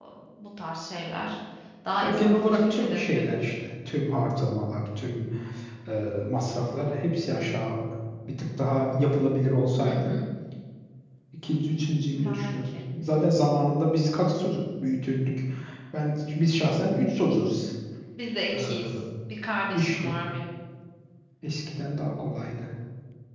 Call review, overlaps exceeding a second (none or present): present